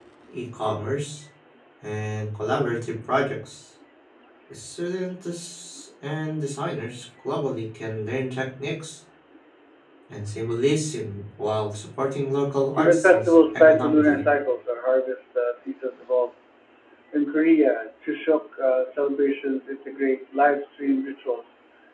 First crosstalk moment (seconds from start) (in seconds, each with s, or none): 12.8 s